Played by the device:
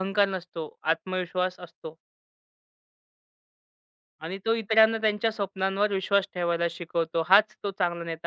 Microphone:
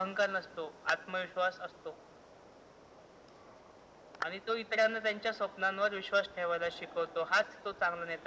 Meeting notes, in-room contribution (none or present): none